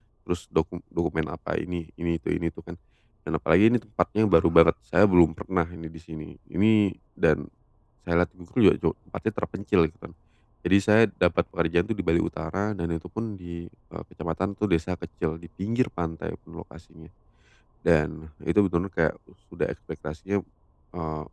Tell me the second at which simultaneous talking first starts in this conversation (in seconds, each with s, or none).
none